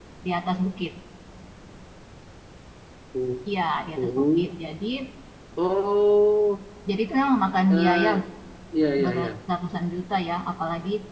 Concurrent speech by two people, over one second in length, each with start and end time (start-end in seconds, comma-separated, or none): none